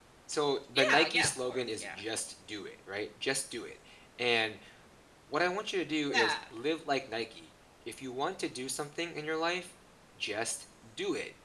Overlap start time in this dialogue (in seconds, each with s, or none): 0.8 s